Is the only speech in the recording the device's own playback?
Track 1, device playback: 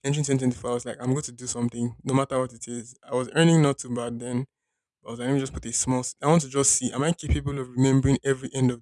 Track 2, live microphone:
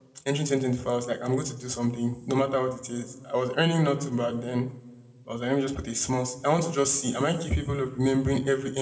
Yes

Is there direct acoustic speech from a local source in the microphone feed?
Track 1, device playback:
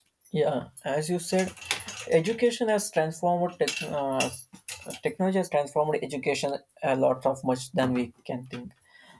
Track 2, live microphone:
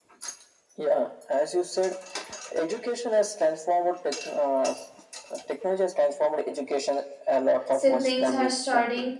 Yes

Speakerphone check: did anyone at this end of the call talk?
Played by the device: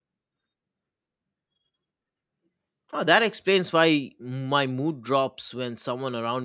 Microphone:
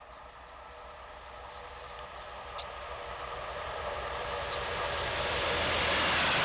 No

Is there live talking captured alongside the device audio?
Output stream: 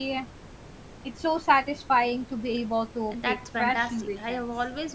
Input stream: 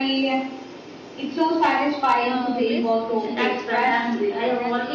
Yes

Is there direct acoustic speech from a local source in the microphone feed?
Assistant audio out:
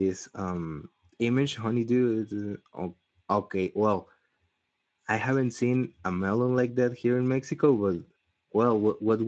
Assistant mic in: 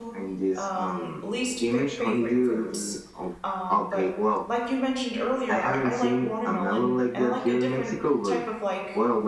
Yes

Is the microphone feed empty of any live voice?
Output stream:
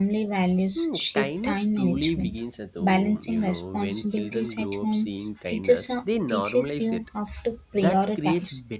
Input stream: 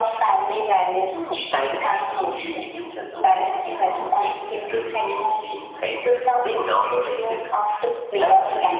Yes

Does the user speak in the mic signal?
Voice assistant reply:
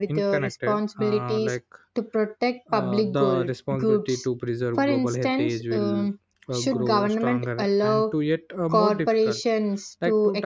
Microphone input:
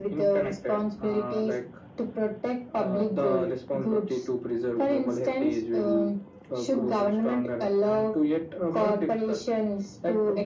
No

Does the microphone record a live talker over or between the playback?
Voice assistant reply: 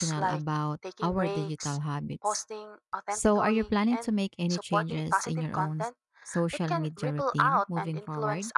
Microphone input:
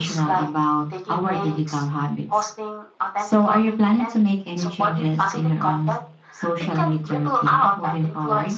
No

